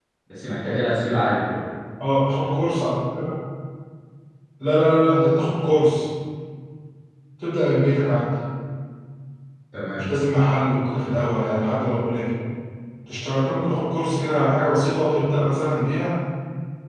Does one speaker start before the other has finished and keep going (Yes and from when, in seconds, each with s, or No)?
No